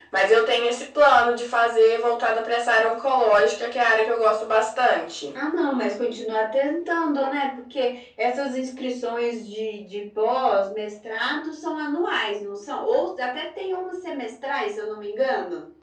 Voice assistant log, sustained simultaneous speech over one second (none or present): none